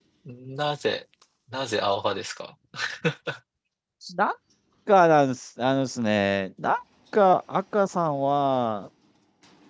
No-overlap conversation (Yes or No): Yes